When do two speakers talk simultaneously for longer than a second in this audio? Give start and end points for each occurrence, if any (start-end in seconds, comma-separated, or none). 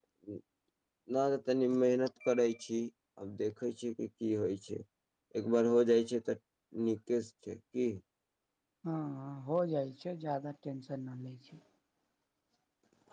none